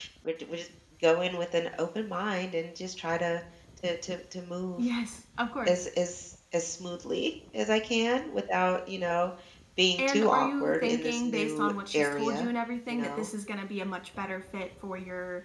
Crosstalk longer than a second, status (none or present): present